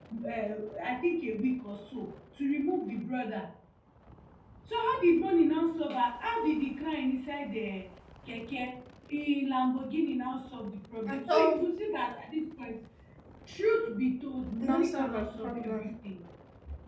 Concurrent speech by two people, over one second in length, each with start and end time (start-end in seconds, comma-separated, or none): 14.6-15.9